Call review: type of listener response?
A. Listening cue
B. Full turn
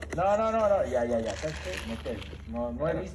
B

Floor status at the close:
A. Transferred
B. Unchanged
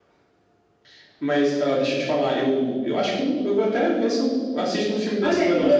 A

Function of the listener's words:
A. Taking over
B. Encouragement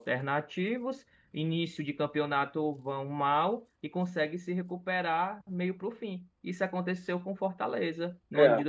B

